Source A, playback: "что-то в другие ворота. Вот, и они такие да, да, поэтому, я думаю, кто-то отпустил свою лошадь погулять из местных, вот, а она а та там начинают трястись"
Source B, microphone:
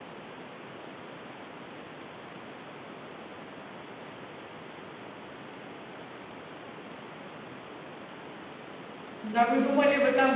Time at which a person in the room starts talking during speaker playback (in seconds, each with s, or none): 9.2 s